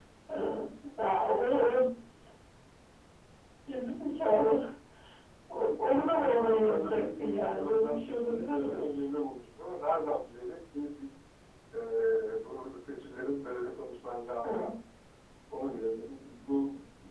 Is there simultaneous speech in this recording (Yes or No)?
Yes